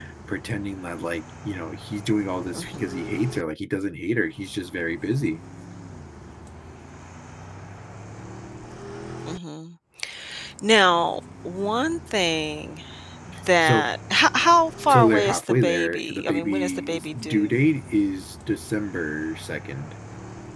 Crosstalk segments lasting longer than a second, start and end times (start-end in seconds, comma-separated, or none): 14.9-17.6